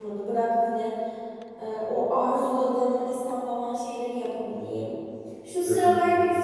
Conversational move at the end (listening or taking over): listening